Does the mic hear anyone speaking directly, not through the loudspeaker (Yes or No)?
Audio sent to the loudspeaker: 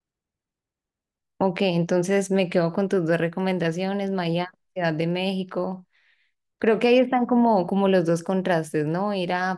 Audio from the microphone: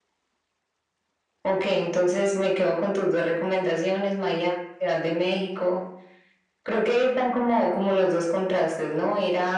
No